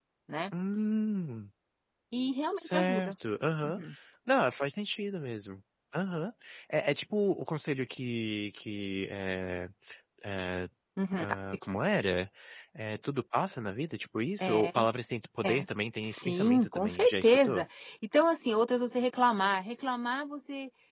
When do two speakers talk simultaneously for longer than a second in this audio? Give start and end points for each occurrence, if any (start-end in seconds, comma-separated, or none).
16.0-17.6